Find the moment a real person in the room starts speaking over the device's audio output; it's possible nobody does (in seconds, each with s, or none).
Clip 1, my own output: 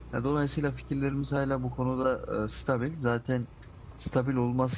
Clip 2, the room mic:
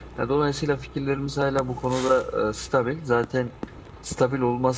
none